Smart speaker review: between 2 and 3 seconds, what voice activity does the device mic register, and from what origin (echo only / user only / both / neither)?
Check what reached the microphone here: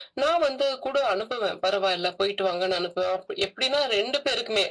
echo only